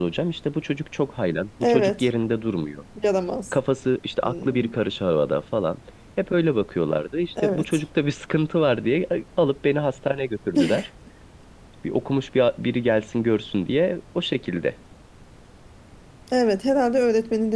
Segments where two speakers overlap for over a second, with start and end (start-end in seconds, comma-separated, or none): none